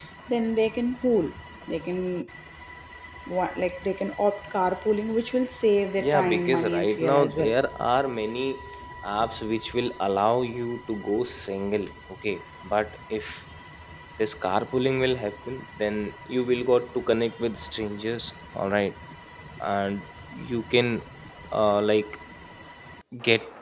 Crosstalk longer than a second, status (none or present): present